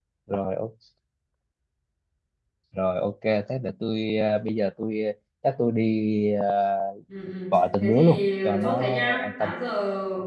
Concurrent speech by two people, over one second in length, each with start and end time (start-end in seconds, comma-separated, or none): 7.5-9.5